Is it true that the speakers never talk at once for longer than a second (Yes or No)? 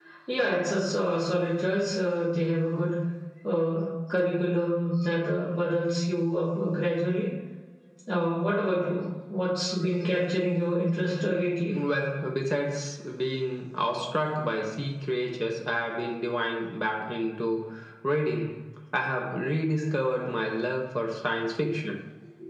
Yes